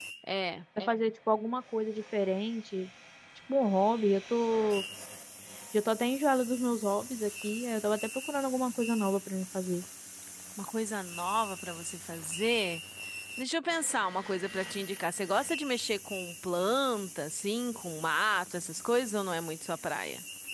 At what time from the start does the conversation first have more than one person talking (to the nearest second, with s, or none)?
none